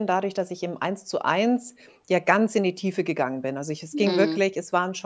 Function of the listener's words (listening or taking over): listening